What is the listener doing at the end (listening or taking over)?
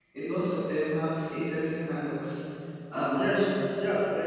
taking over